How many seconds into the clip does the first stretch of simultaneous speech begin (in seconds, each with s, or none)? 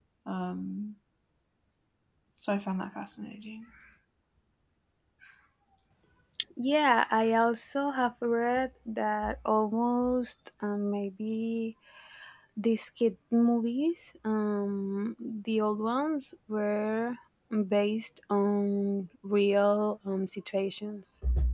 none